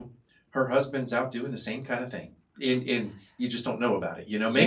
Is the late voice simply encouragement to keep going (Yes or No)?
No